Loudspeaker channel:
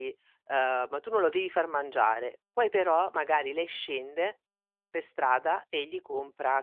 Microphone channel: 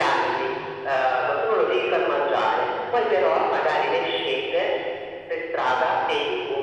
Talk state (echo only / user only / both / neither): echo only